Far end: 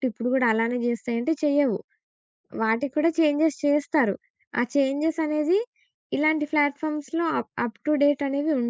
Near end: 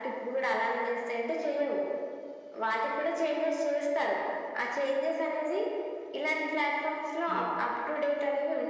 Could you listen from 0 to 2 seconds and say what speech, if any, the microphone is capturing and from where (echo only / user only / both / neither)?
echo only